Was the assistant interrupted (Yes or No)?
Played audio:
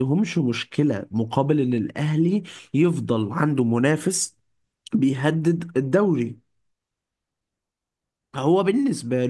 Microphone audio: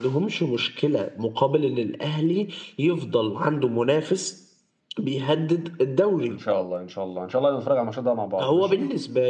Yes